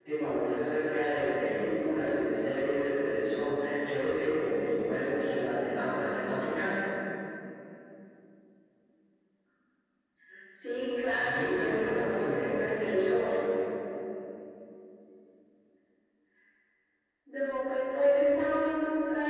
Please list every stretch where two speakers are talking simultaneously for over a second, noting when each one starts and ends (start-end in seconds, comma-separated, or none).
11.2-13.4